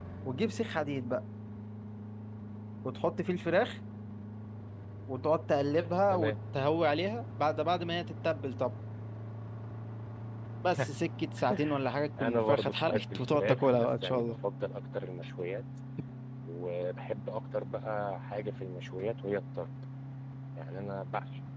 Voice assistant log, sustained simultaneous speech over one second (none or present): present